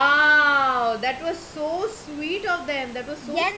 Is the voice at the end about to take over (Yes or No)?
Yes